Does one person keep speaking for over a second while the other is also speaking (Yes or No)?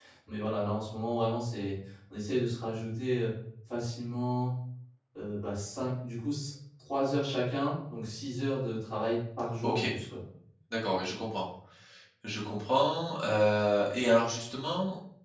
No